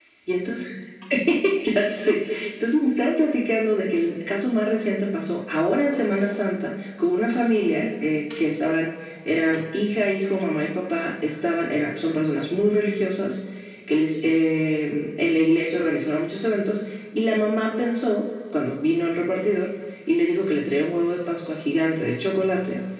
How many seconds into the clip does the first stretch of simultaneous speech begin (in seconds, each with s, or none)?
none